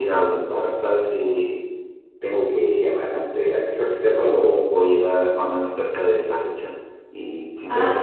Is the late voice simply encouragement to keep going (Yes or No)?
No